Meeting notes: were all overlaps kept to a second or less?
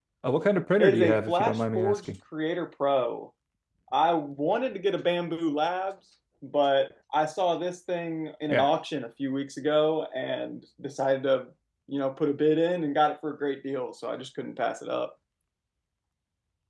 No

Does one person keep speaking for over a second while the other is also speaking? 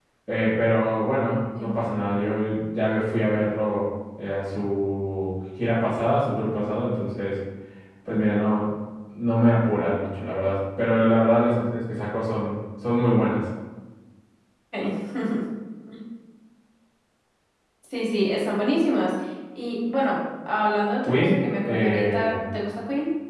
Yes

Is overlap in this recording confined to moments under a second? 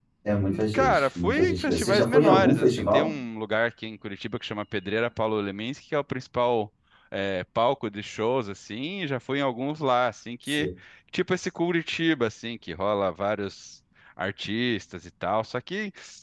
No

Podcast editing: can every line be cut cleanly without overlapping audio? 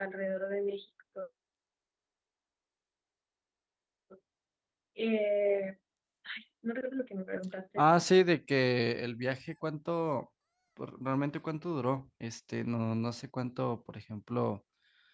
Yes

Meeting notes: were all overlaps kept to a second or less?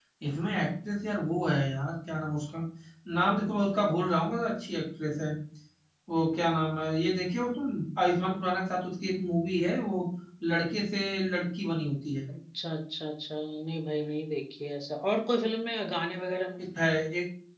Yes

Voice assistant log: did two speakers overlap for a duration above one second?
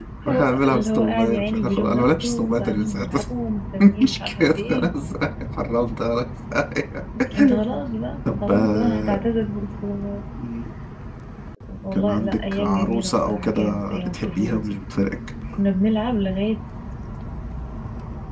Yes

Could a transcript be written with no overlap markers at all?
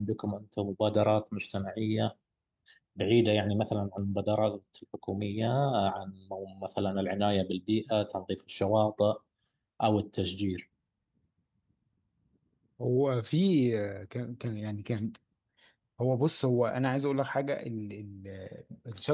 Yes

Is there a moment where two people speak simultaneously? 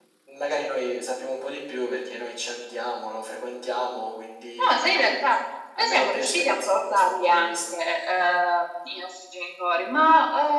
Yes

